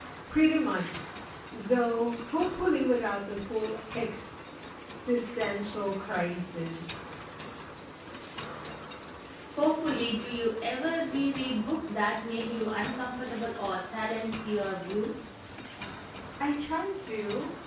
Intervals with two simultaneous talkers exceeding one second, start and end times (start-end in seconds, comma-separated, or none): none